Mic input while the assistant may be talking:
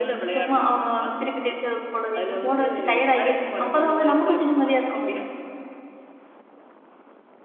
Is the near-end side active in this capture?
No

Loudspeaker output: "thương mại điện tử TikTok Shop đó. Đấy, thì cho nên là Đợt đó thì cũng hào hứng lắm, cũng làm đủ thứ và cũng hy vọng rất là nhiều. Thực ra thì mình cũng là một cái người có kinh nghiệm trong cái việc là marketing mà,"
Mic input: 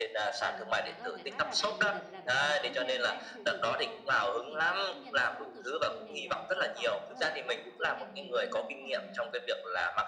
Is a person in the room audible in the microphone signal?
Yes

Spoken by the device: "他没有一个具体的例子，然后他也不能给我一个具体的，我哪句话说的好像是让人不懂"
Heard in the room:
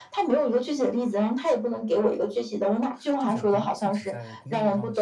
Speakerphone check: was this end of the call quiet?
No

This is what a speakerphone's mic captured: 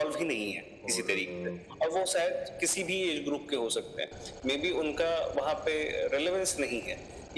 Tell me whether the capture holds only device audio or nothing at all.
No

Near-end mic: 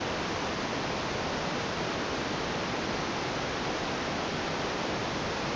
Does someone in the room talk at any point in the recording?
No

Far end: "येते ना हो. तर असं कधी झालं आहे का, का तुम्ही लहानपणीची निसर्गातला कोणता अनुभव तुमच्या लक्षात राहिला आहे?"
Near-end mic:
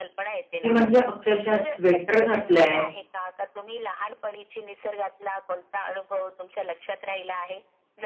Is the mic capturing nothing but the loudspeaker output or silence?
No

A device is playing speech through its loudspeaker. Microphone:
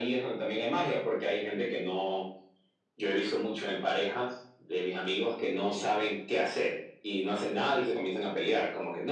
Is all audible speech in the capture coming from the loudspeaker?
Yes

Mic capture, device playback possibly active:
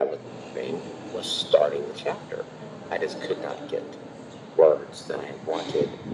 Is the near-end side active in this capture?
No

